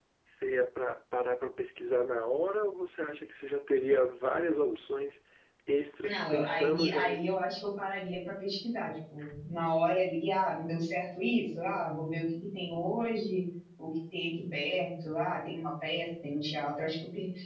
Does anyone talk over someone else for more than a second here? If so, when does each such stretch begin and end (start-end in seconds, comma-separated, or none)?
6.0-7.3